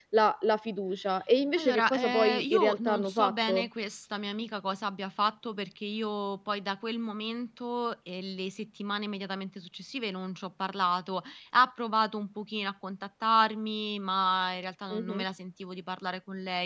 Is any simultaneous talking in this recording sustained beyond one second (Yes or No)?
Yes